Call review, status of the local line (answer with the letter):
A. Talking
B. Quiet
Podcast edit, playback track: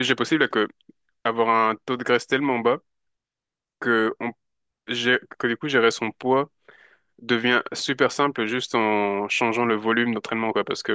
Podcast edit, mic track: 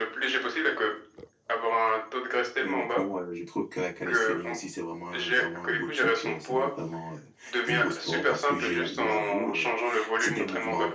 A